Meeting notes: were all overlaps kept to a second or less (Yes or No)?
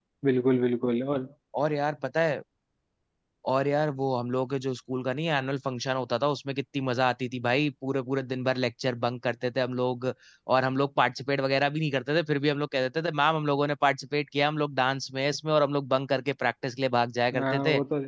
Yes